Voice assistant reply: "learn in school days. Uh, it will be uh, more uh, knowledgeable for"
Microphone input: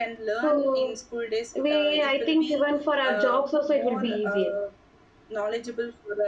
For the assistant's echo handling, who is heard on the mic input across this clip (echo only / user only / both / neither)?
both